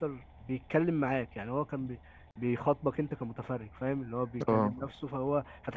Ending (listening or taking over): listening